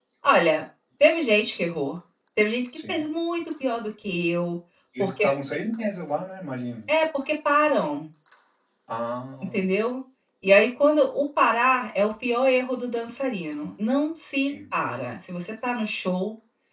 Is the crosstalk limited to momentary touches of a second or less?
Yes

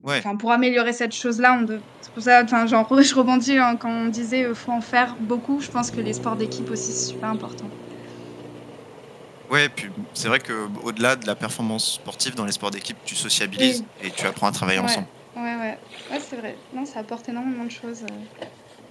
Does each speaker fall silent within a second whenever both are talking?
Yes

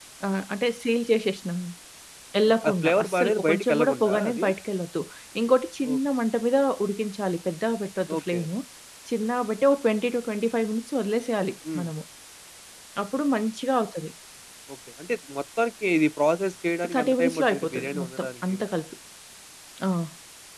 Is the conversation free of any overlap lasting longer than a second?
No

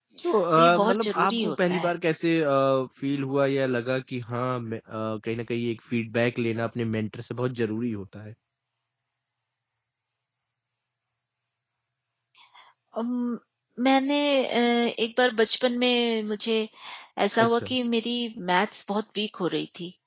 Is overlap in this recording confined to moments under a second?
No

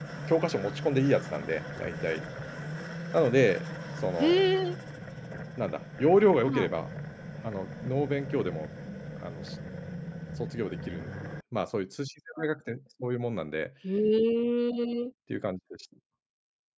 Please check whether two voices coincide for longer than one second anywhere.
No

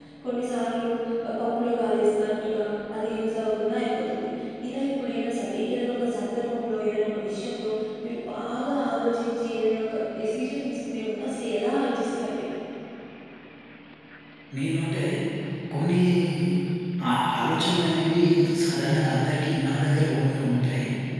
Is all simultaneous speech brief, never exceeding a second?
Yes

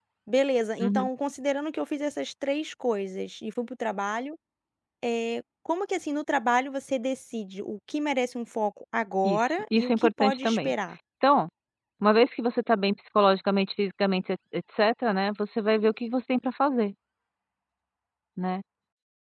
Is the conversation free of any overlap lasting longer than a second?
No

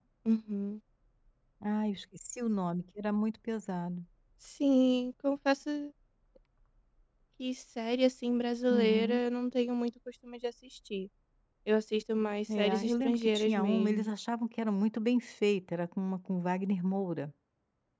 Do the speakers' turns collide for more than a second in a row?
Yes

